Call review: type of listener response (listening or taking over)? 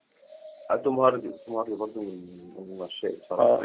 taking over